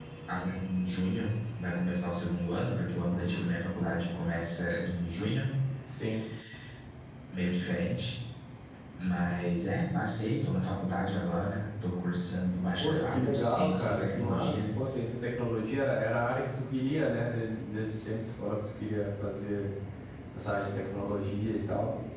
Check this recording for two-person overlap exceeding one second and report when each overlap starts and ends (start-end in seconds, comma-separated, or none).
12.8-14.7